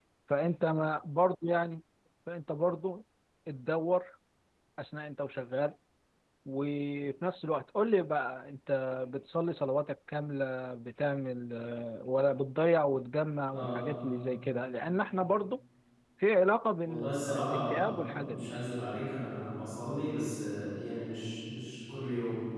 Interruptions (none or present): present